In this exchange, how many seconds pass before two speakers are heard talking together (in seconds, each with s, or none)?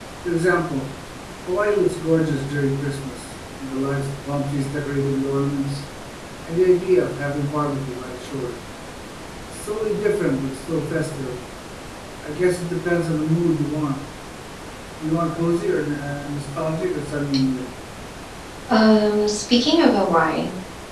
none